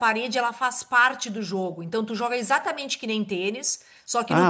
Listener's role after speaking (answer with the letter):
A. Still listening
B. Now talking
B